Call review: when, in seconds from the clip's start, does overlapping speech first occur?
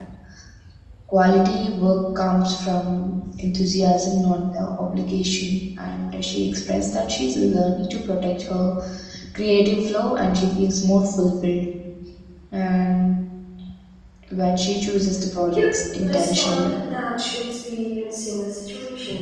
15.5 s

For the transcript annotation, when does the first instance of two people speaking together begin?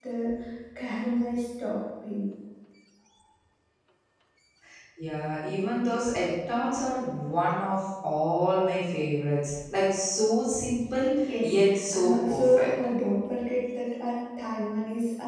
11.2 s

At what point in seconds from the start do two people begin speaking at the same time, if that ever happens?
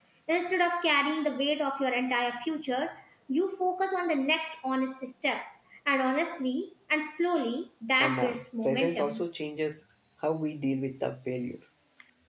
8.0 s

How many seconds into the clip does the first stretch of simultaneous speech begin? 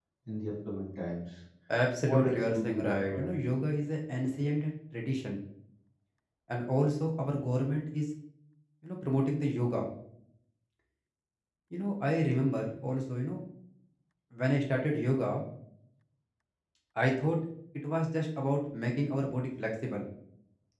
2.1 s

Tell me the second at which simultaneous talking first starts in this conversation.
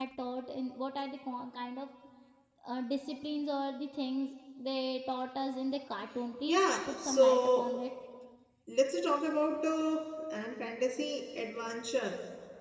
6.4 s

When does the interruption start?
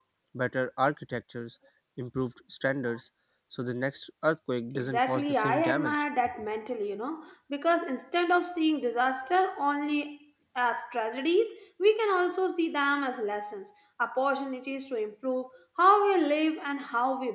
4.8 s

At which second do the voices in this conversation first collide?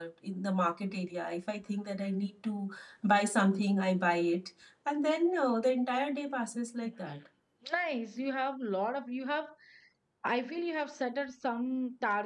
none

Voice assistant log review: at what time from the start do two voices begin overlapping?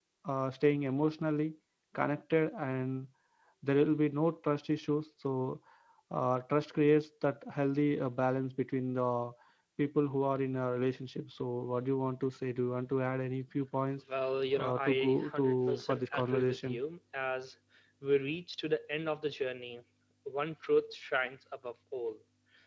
14.6 s

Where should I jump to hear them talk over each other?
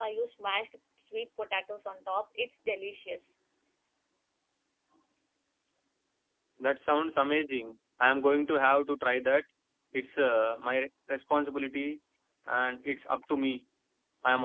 none

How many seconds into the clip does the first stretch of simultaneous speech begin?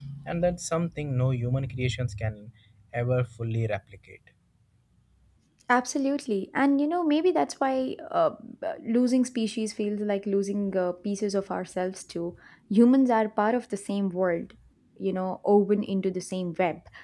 none

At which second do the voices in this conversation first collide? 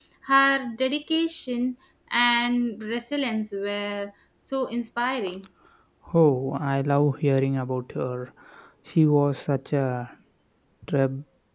none

